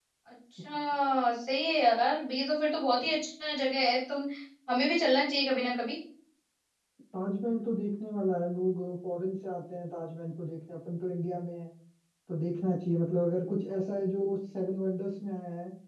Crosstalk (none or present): none